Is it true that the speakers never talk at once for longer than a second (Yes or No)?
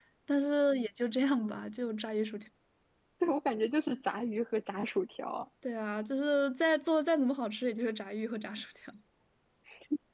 Yes